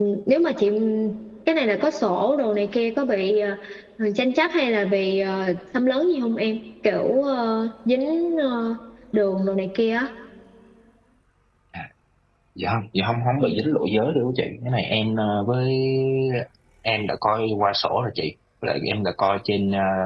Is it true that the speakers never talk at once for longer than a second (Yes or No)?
Yes